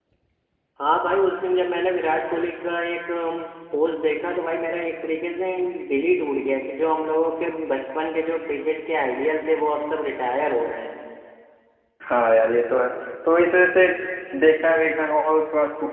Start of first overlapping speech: none

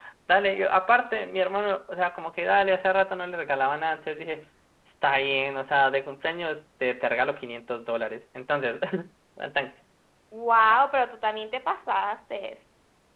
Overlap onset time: none

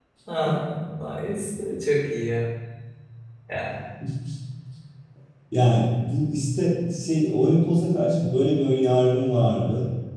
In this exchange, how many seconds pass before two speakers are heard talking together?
none

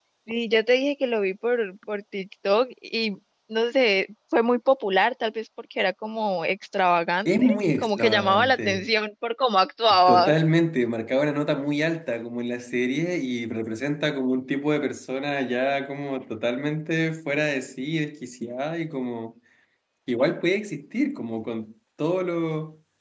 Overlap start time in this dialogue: 7.2 s

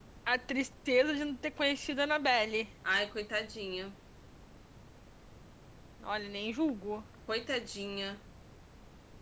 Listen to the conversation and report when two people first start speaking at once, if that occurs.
none

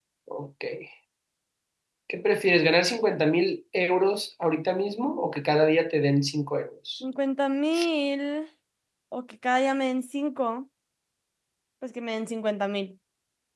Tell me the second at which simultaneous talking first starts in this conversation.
none

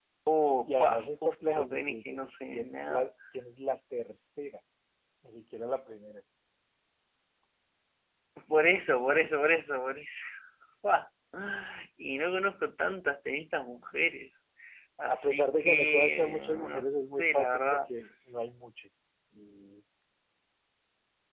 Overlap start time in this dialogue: 0.7 s

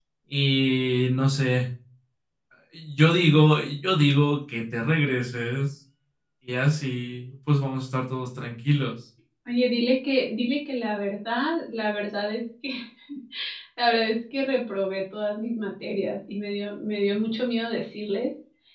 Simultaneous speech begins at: none

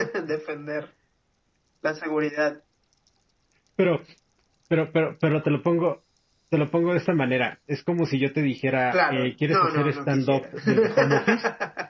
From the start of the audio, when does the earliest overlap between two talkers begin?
8.9 s

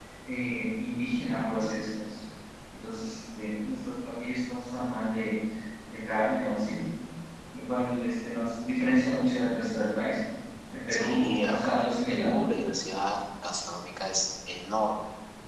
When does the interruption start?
10.9 s

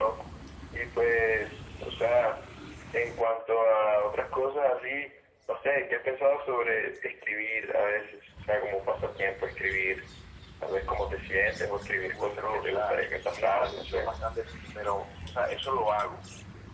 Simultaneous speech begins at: 12.1 s

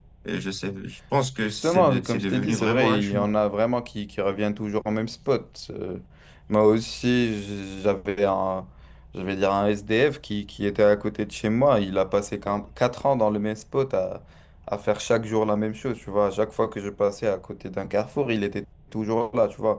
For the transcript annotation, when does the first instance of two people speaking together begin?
1.4 s

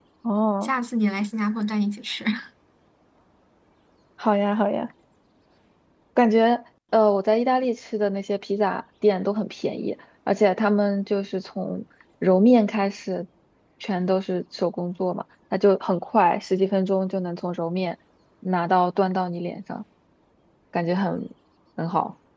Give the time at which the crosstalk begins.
none

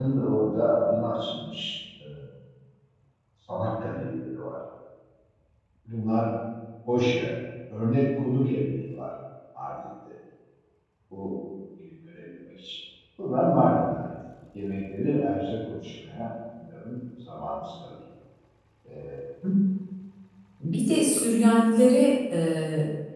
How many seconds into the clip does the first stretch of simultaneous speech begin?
none

